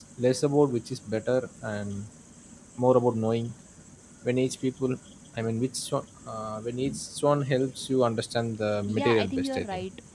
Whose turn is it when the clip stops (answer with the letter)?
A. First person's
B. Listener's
B